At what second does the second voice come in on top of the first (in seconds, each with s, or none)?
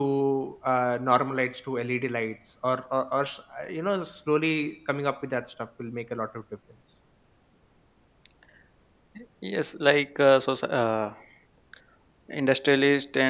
none